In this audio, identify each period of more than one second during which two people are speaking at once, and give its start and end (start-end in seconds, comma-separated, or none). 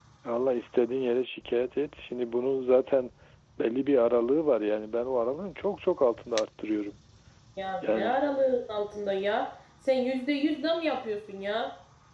none